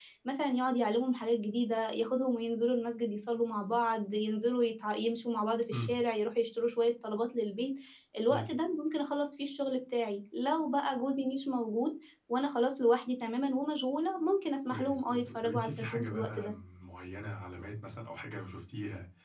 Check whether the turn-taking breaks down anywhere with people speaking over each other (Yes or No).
Yes